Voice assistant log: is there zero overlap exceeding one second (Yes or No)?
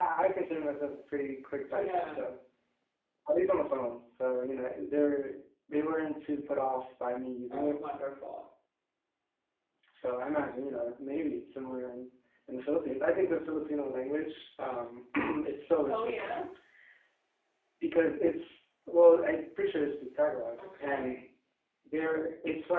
Yes